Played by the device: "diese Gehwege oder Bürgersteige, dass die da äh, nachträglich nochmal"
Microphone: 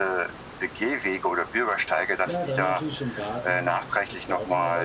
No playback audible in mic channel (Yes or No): No